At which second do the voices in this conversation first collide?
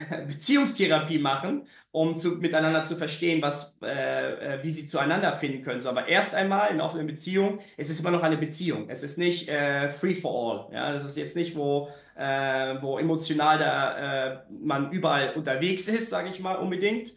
none

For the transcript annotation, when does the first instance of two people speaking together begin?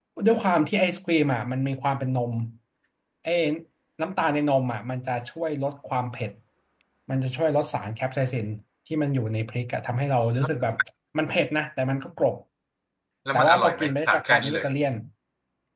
13.3 s

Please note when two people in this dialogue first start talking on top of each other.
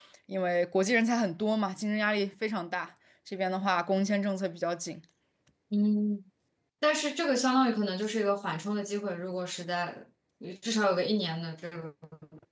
none

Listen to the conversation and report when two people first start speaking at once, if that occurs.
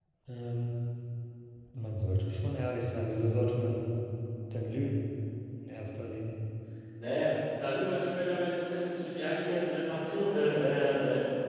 none

